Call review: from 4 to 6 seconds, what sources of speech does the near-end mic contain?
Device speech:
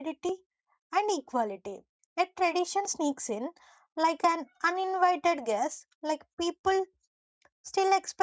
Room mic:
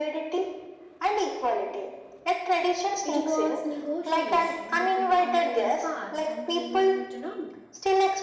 both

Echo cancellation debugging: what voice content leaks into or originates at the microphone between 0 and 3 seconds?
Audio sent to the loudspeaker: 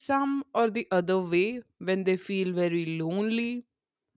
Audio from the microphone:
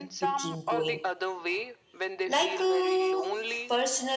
both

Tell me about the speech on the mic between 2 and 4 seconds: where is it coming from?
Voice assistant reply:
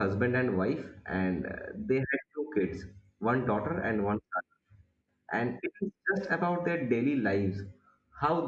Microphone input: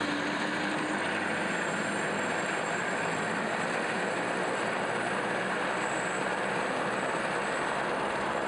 neither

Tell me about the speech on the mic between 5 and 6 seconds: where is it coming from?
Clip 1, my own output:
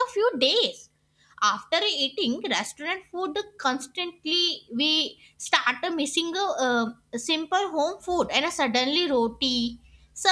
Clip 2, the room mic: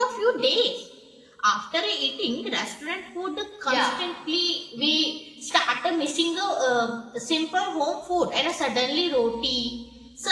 echo only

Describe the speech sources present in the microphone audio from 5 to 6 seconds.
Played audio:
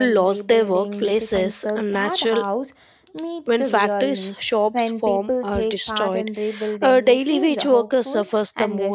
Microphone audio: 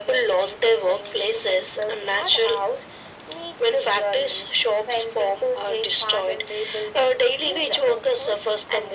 echo only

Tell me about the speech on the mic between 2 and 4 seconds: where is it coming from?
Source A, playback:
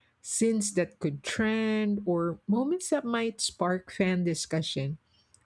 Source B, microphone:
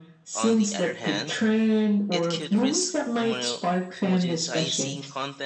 both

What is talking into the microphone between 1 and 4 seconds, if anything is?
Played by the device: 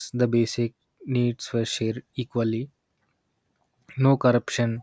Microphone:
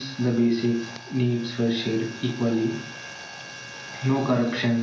echo only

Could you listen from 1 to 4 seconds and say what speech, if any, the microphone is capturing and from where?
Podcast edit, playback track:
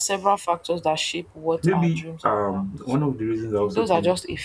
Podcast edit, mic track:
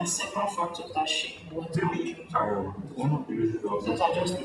echo only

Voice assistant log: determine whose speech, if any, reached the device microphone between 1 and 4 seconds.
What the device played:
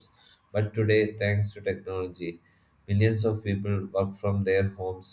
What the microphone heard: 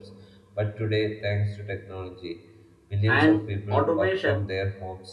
both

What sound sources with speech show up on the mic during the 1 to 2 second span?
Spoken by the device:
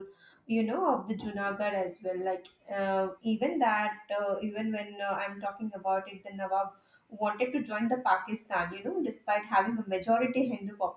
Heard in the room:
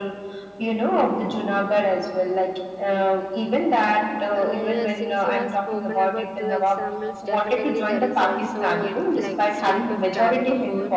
echo only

